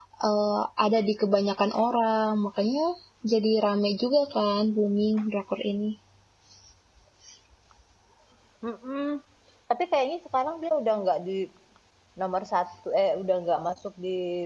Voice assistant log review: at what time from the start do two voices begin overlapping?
none

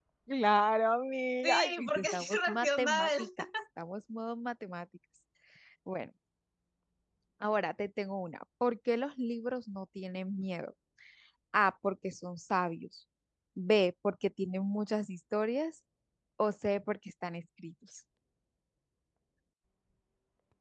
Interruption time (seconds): 1.4 s

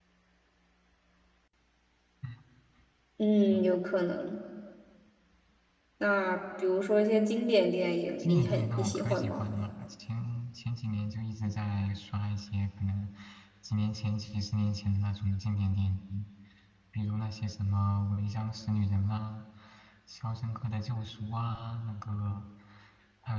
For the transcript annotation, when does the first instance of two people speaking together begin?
8.2 s

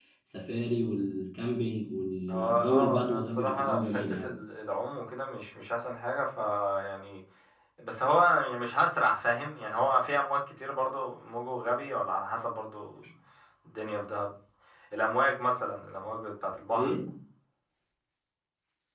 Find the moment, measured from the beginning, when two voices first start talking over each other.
2.3 s

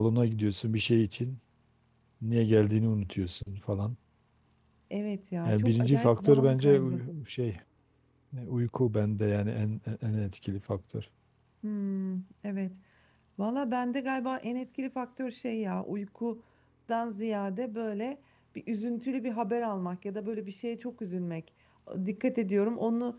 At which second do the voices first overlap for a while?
5.5 s

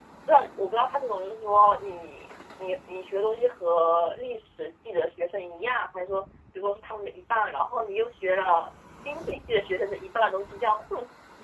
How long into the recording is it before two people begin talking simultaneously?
none

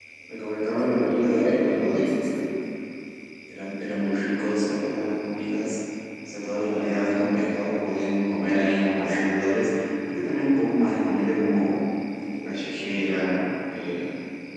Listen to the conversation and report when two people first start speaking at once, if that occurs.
0.8 s

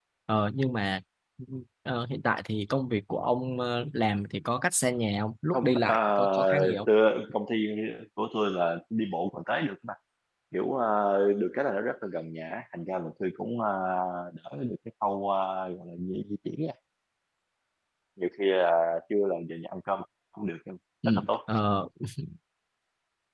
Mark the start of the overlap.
5.5 s

